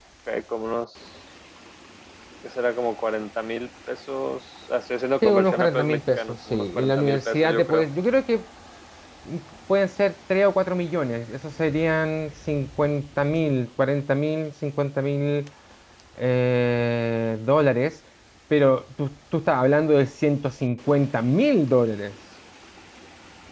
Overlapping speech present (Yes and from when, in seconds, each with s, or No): Yes, from 5.2 s